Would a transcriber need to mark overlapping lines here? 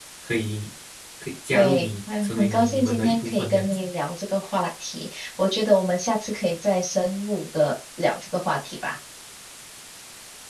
Yes, from 1.5 s

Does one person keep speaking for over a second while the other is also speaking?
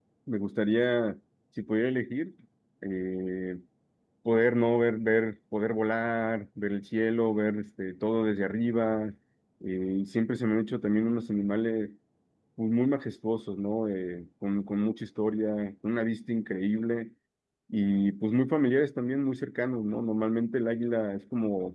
No

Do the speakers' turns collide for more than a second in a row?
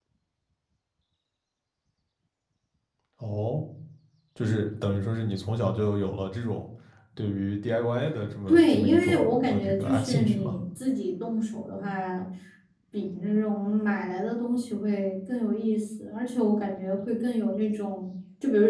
Yes, from 8.5 s

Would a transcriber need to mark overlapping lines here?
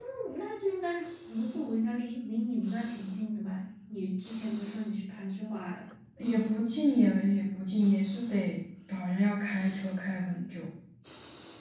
No

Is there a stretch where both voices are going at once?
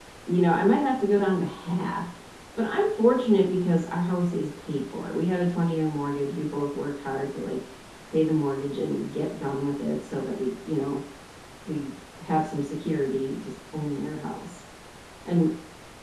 No

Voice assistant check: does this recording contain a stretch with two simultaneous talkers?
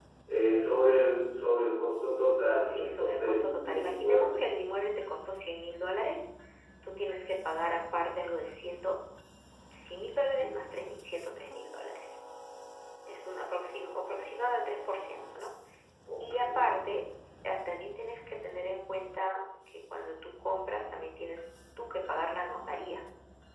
Yes, from 2.6 s

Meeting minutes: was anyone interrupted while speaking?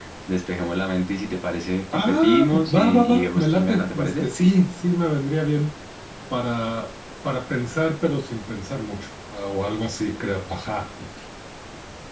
Yes, from 1.9 s

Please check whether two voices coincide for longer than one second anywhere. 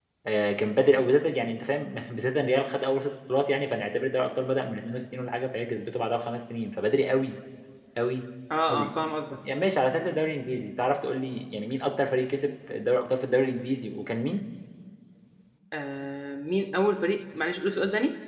No

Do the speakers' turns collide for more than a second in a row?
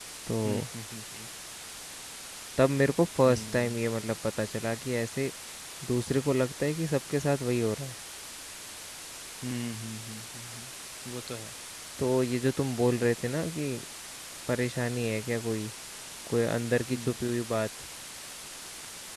No

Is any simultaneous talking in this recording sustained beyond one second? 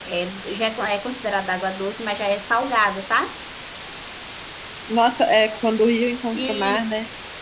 No

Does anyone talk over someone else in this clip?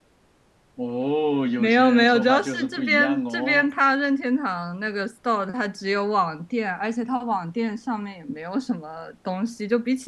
Yes, from 1.6 s

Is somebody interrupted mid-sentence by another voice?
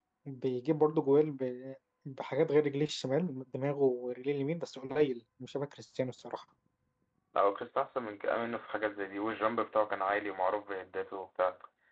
No

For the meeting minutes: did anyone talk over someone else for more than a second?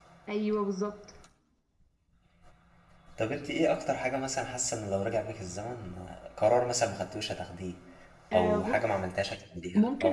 No

